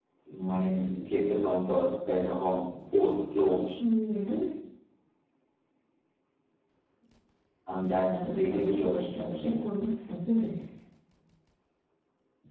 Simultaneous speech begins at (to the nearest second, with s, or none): 8 s